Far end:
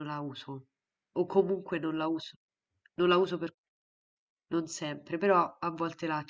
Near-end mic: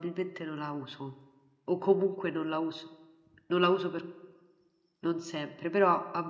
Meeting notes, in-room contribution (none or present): none